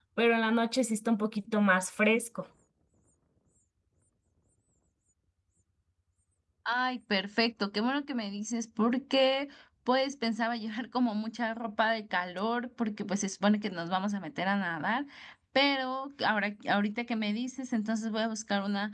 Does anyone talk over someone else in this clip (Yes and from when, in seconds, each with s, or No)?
No